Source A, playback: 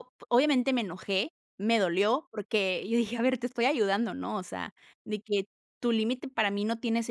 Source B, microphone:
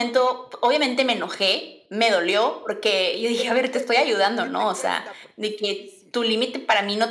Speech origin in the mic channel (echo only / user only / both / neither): both